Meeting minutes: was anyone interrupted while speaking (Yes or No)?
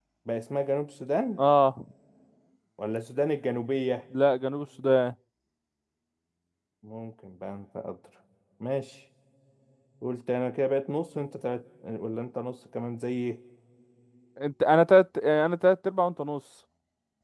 No